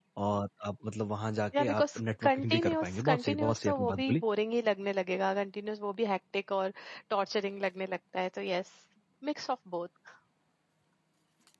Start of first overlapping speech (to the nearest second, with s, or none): 2 s